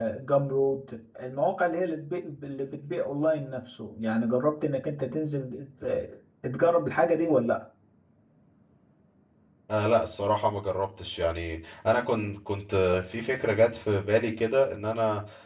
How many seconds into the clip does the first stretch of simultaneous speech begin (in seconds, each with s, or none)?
none